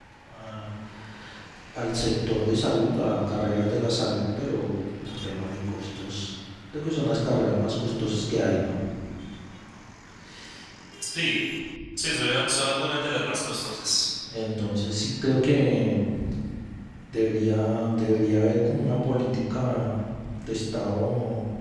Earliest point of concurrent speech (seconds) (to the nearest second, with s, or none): none